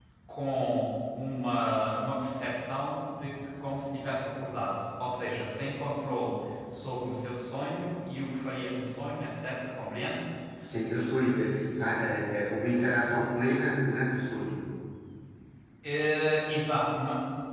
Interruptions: none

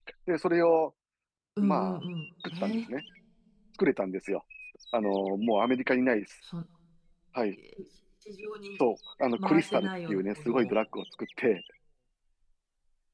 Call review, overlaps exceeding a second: present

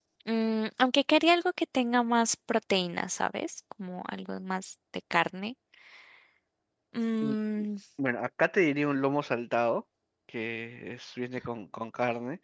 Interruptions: none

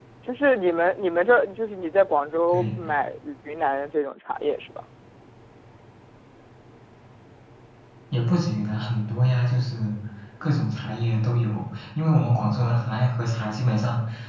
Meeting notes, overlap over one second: none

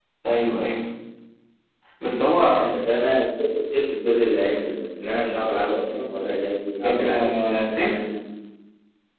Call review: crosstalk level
present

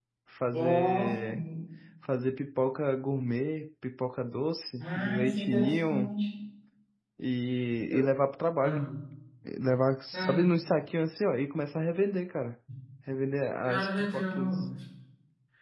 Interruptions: present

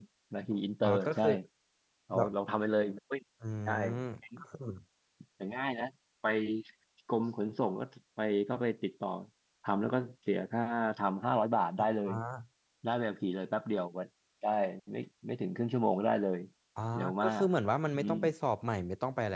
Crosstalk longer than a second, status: none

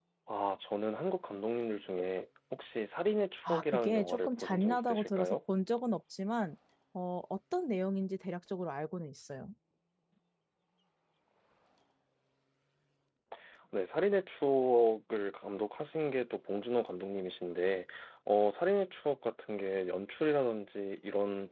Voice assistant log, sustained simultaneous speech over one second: present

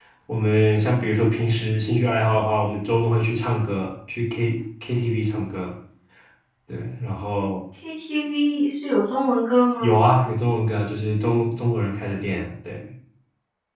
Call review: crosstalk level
none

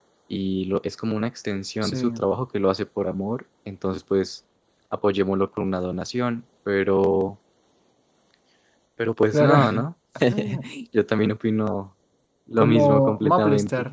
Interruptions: present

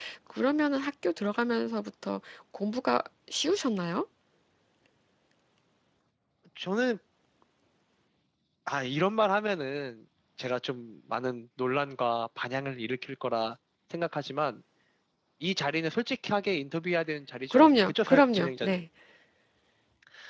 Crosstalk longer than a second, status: present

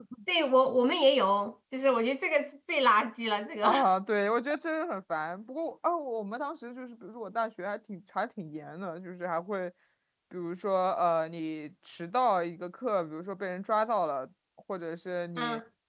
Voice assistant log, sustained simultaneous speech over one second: none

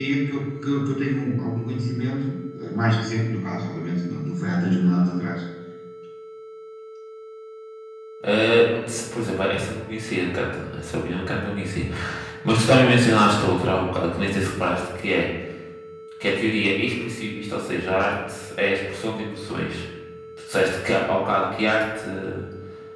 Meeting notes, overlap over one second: none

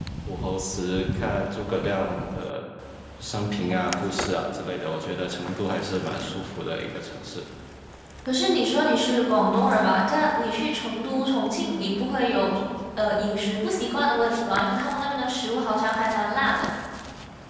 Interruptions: none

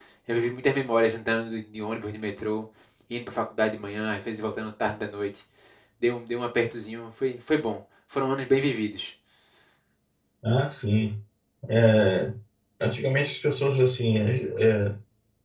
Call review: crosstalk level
none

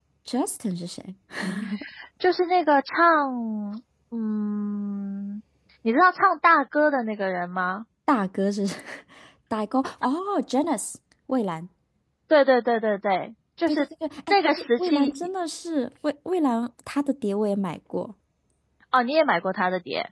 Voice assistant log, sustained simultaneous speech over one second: none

